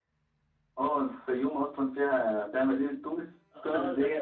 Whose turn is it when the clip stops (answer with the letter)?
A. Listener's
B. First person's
A